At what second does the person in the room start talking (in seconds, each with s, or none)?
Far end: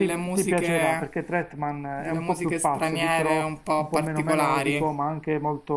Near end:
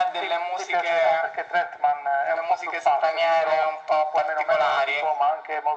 none